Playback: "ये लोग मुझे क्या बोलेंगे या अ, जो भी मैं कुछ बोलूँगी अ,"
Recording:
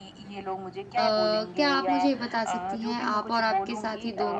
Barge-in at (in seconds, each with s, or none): 1.0 s